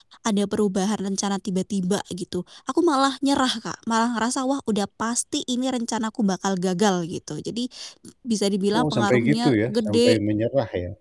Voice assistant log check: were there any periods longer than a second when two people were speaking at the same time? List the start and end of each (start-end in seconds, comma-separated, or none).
8.7-10.2